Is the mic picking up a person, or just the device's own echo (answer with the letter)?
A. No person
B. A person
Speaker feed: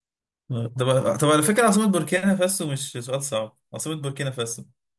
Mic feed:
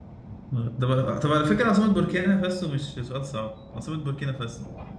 A